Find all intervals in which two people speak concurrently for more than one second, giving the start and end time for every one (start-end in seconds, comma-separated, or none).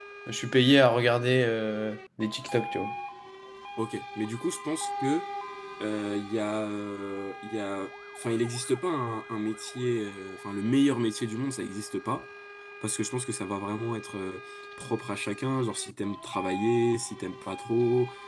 none